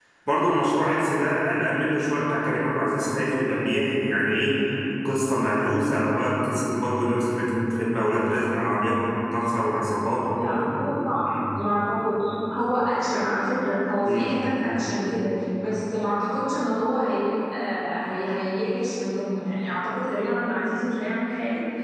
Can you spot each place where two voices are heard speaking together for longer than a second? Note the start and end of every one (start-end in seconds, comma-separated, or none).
none